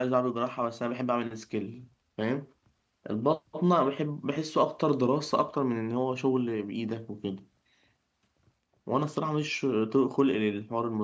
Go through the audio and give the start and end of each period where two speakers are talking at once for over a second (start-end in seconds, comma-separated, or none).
none